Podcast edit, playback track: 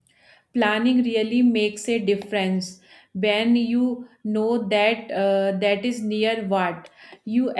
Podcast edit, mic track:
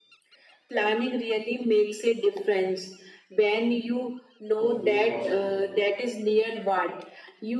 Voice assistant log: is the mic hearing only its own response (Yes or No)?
No